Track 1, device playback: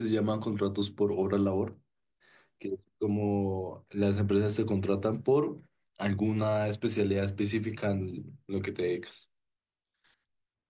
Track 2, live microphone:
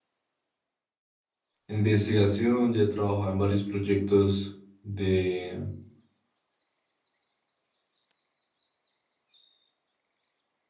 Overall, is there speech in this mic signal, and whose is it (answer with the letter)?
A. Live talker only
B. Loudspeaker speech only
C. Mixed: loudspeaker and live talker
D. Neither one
A